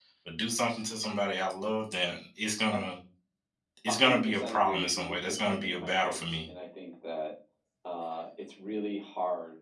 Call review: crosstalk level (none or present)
present